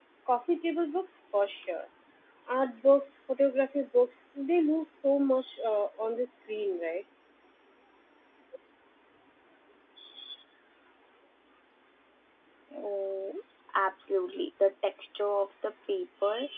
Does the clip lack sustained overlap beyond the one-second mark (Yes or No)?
Yes